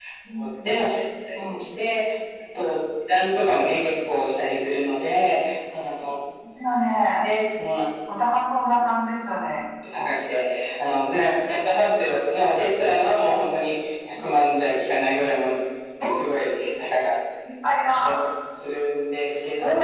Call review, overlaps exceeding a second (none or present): none